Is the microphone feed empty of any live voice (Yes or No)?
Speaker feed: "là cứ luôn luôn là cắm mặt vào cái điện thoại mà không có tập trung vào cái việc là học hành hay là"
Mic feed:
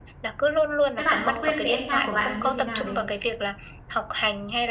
No